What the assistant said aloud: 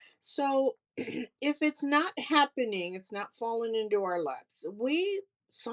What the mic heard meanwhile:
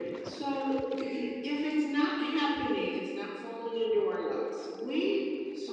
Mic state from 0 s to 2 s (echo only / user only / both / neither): echo only